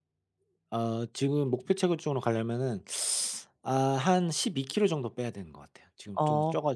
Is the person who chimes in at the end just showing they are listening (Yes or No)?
No